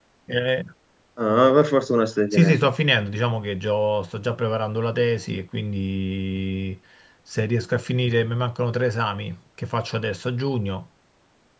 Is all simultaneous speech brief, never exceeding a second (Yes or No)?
Yes